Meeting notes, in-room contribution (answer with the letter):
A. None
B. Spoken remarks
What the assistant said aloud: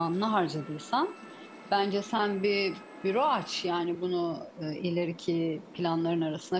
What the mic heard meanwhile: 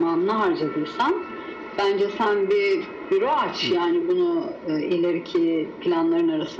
B